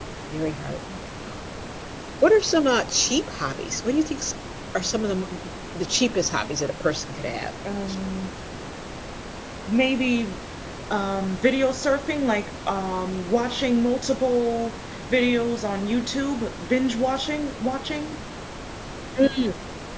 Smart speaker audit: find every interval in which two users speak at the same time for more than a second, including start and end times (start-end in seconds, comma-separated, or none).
none